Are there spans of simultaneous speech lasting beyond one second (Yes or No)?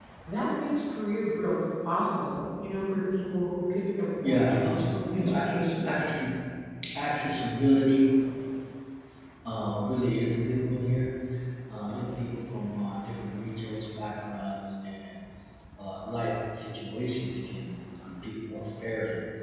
Yes